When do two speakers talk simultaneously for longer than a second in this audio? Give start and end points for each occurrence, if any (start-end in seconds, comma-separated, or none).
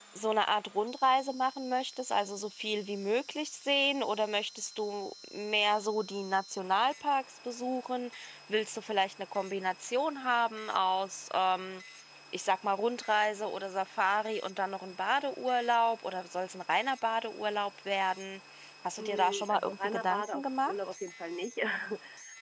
19.0-20.7